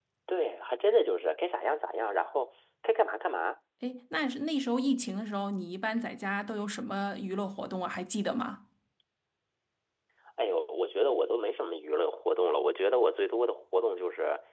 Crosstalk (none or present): none